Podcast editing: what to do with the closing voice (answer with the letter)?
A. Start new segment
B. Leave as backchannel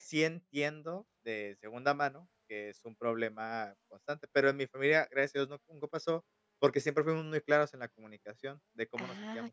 A